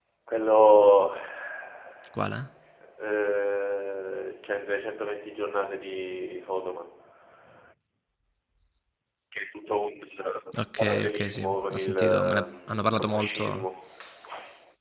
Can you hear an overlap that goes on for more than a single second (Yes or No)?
Yes